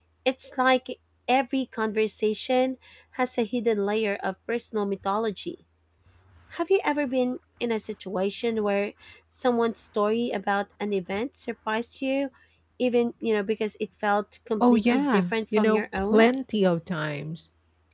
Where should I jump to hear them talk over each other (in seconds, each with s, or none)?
14.6 s